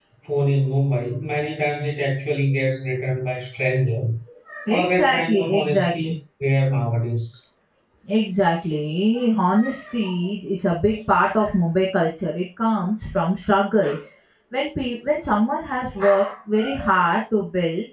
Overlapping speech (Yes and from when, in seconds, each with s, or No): Yes, from 4.7 s